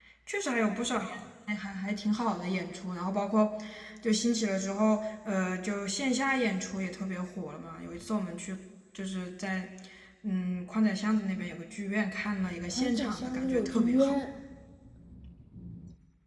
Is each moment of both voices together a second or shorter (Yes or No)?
No